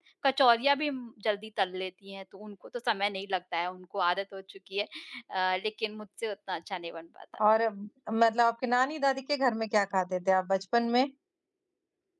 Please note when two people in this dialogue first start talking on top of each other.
none

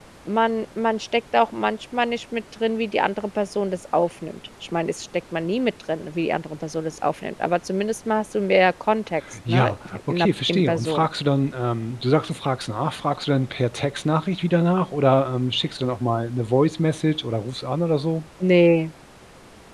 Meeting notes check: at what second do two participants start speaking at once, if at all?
9.3 s

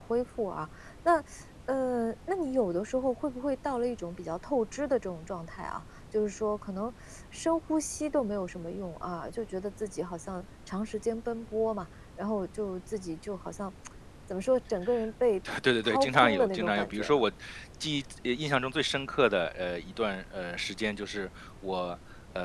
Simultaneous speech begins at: 15.8 s

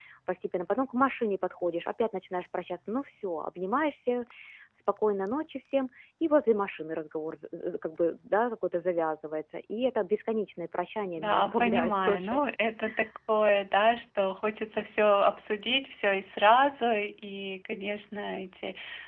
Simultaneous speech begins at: 11.2 s

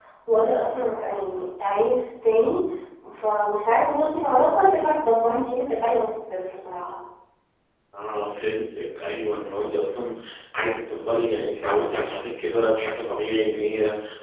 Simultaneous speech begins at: none

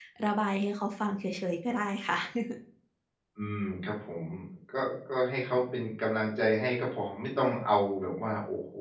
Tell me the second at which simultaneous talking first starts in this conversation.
none

